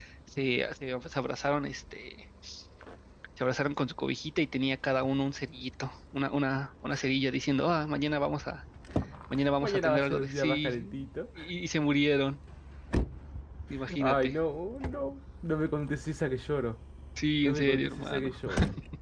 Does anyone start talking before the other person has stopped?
Yes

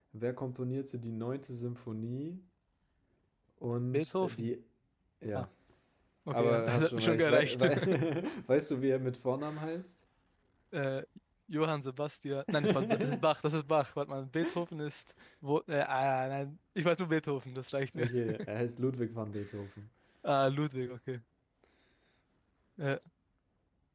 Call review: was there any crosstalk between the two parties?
Yes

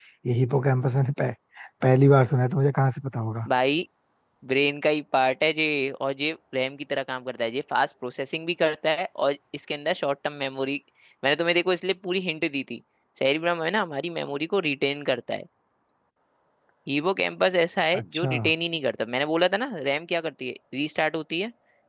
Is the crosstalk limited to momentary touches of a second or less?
Yes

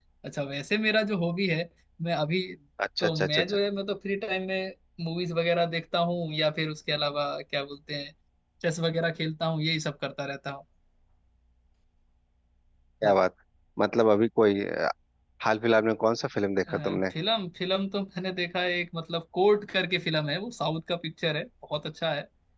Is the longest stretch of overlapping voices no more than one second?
Yes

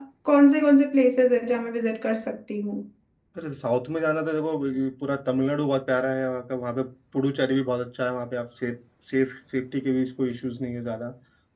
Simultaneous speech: No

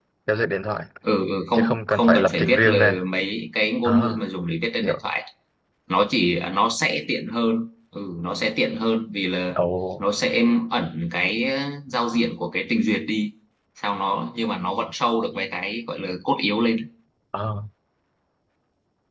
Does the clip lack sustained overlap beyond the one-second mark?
No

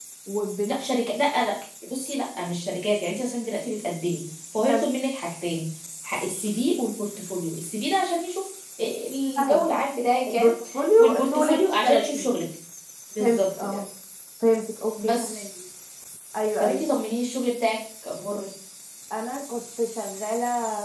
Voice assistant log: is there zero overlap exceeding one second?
No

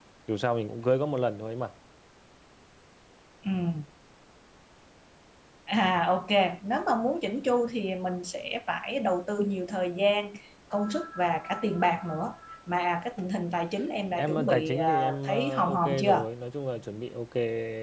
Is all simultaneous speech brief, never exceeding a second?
No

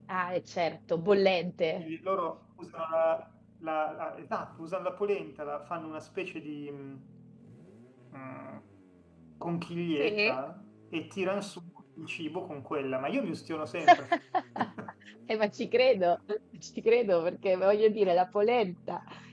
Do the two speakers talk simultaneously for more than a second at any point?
No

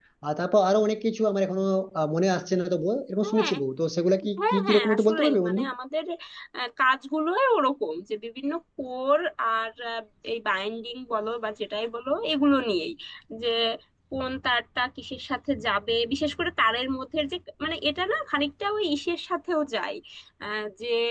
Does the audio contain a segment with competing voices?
Yes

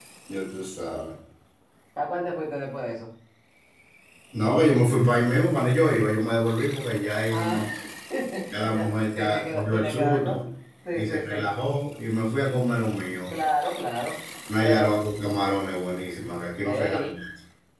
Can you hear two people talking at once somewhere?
Yes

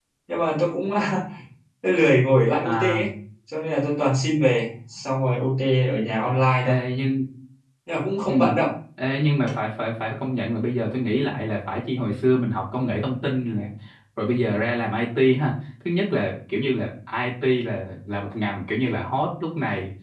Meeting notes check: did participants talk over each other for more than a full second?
No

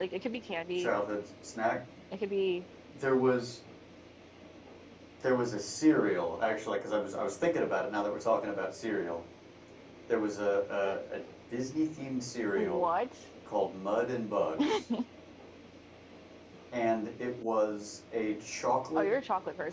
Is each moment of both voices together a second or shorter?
Yes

